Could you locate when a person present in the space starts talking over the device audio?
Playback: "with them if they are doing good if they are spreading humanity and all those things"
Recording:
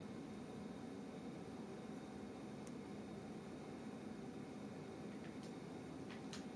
none

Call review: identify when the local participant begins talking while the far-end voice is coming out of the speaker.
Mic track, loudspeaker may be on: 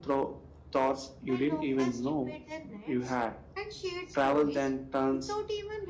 none

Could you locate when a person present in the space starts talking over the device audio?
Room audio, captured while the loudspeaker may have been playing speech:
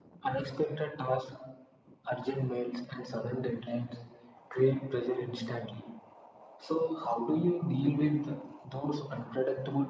none

